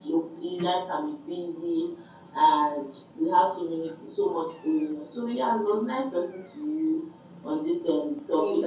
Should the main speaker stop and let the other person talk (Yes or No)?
No